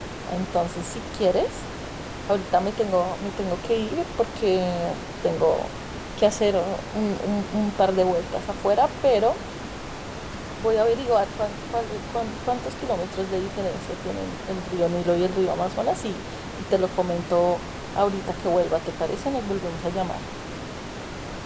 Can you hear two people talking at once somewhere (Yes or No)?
No